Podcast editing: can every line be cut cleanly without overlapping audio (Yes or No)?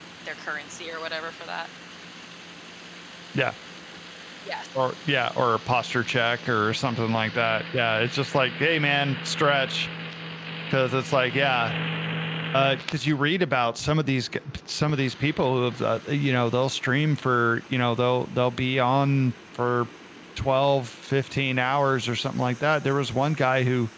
Yes